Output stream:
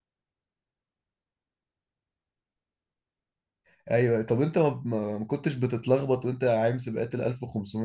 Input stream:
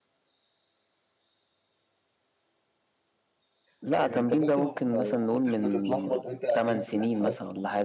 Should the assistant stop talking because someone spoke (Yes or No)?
Yes